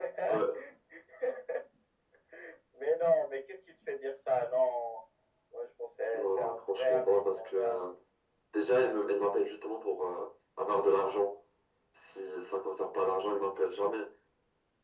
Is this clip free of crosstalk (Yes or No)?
No